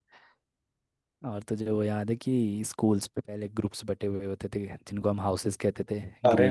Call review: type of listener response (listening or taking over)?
taking over